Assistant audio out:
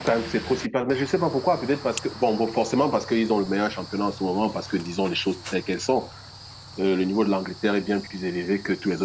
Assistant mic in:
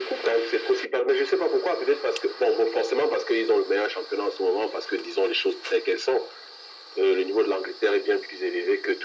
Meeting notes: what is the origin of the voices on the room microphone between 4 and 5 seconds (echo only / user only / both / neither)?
echo only